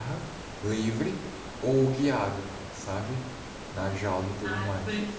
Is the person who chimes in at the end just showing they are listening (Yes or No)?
No